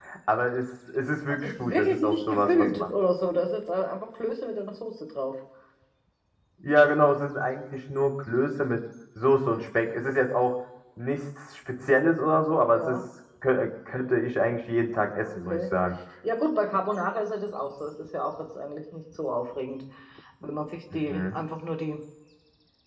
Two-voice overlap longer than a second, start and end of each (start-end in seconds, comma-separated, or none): 1.4-2.9